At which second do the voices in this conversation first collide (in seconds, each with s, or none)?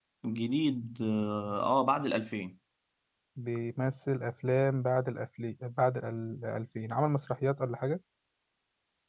none